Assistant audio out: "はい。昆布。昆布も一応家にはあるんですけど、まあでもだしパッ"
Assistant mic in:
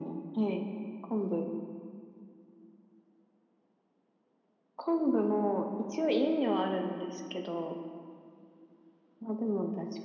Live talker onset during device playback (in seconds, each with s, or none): none